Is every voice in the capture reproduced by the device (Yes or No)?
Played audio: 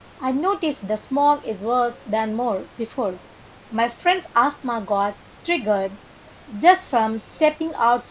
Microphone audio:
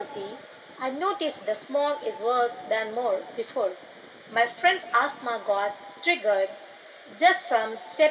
Yes